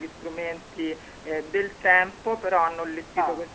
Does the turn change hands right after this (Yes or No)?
No